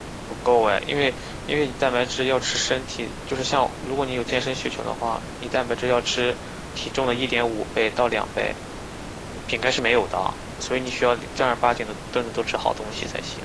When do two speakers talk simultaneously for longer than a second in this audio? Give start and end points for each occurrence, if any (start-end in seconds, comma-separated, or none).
none